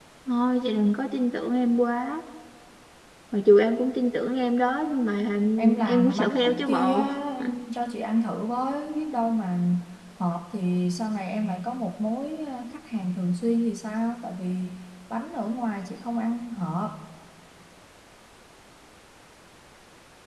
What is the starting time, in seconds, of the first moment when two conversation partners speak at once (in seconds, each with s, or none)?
5.6 s